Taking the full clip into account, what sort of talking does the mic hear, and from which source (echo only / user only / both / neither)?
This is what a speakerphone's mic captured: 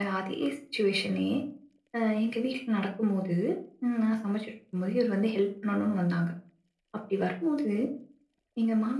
echo only